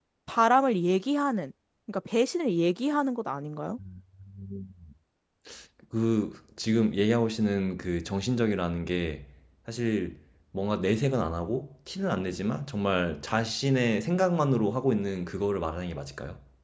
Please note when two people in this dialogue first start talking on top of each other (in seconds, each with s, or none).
none